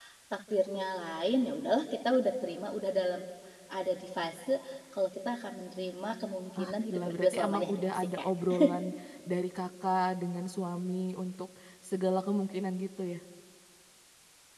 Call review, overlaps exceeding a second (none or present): present